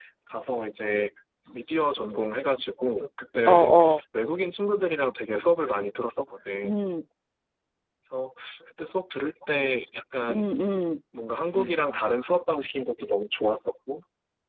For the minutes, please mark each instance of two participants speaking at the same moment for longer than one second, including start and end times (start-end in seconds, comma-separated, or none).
none